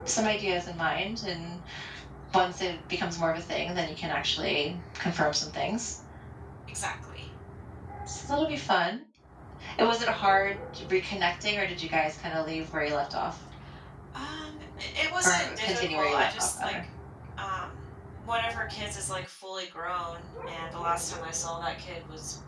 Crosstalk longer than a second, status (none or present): present